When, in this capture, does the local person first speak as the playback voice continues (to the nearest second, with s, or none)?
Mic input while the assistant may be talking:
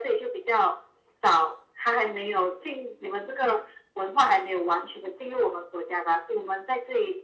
none